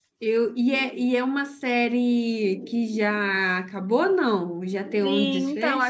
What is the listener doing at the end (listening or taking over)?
taking over